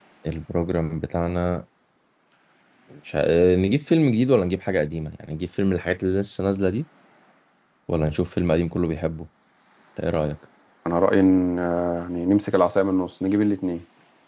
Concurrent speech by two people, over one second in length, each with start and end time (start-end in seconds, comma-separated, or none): none